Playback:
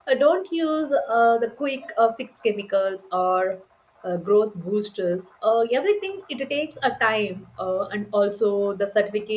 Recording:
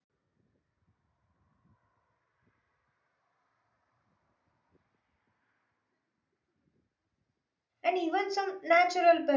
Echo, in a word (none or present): none